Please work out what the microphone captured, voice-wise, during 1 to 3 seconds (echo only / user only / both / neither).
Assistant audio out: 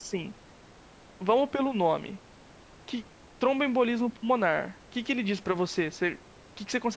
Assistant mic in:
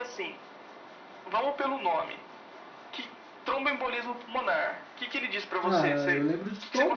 echo only